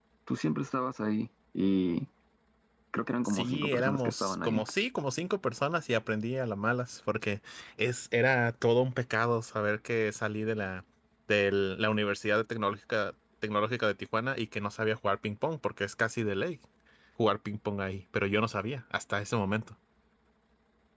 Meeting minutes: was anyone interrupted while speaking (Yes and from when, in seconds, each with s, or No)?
Yes, from 3.2 s